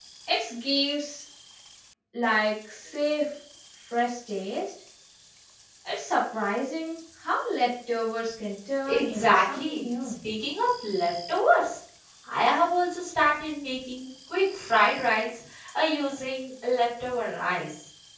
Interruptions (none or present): present